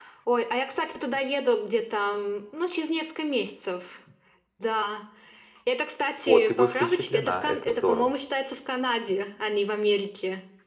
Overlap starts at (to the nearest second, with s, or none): 6 s